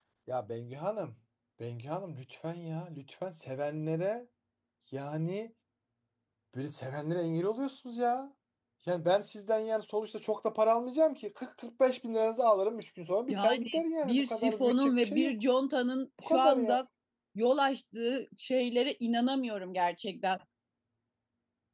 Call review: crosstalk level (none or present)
present